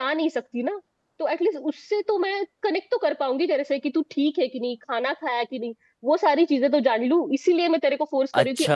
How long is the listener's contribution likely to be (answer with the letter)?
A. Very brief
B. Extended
B